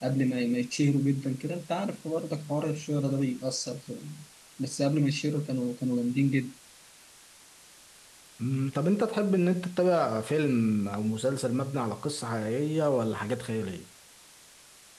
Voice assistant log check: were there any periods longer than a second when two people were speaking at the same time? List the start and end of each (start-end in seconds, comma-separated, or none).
none